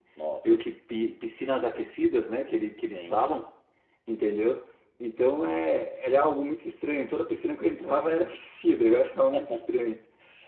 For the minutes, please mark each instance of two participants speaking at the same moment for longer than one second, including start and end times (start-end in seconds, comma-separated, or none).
none